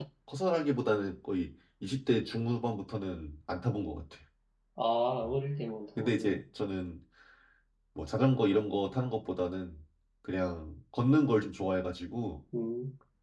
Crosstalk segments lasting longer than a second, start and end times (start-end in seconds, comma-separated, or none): none